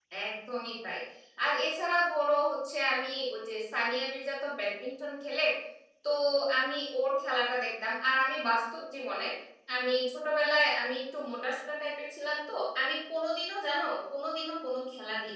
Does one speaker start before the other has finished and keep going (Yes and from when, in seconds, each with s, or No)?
No